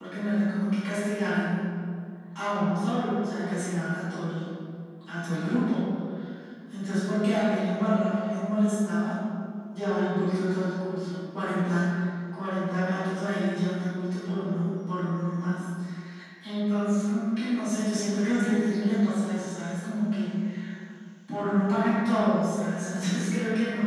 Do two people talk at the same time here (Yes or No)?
No